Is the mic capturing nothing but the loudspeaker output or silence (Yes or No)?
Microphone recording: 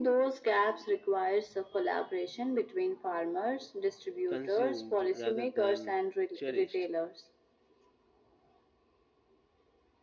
No